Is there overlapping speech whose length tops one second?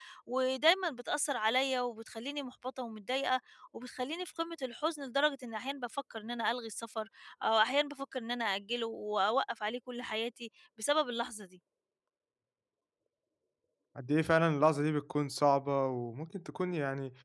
No

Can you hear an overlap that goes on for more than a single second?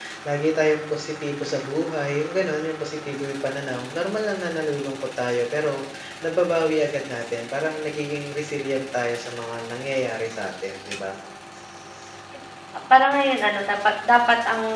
No

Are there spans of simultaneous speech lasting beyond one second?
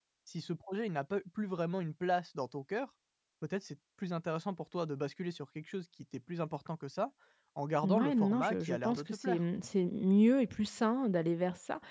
Yes, from 7.8 s

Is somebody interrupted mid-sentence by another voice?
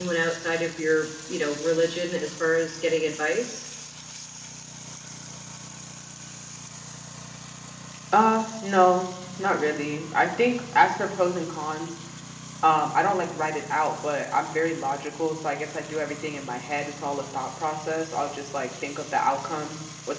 No

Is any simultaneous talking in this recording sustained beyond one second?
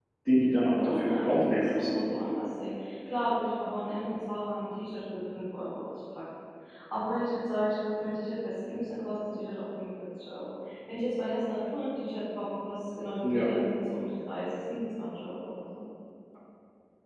Yes, from 0.7 s

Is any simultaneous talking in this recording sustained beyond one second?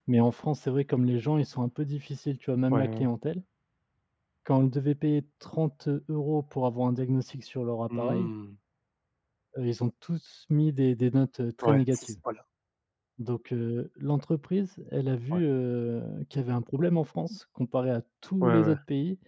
No

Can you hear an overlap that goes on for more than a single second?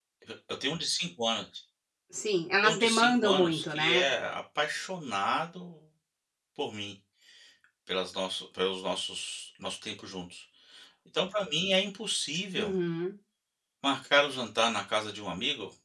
Yes, from 2.6 s

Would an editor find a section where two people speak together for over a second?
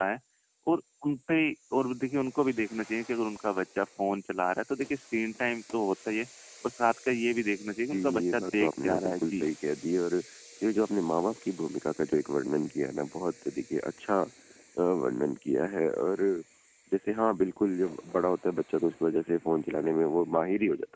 Yes, from 7.9 s

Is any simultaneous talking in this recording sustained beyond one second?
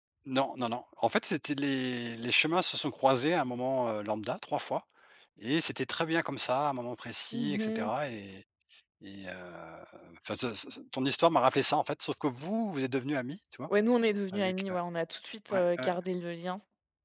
No

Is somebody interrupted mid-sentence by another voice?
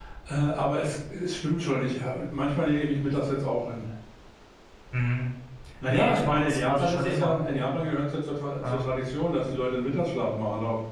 Yes, from 5.9 s

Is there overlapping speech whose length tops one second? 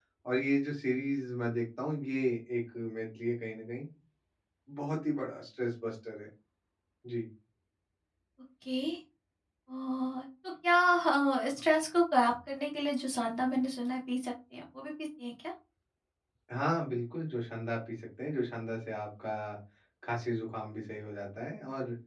No

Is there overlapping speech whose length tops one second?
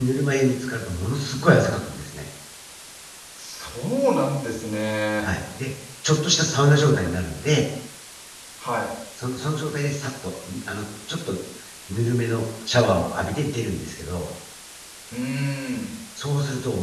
No

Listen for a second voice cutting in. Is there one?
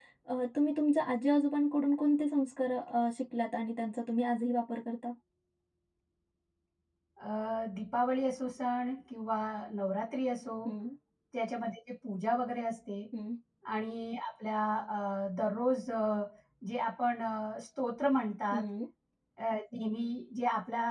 No

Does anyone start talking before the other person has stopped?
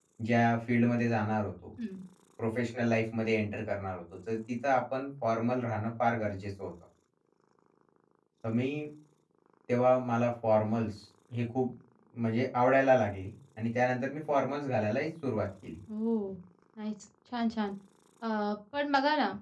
No

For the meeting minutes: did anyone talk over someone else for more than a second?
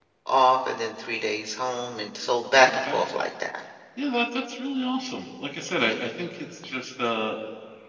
No

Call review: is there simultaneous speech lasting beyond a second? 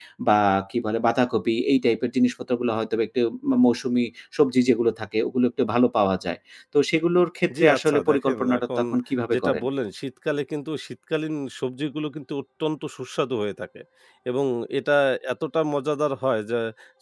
Yes, from 7.6 s

